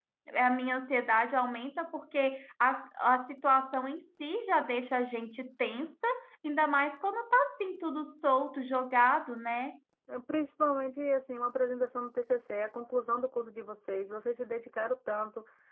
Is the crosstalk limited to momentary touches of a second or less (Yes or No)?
Yes